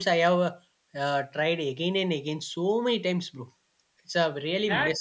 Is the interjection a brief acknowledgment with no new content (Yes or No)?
No